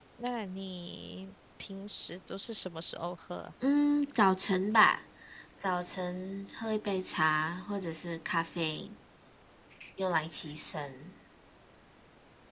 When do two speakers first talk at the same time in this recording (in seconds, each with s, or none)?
none